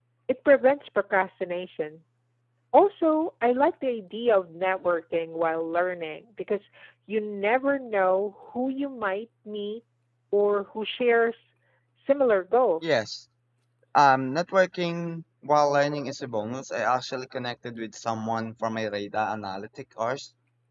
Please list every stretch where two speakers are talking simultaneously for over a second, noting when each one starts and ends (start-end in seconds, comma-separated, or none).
none